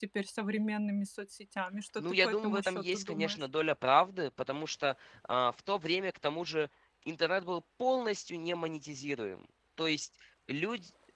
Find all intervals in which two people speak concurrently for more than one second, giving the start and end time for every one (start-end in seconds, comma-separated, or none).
2.0-3.5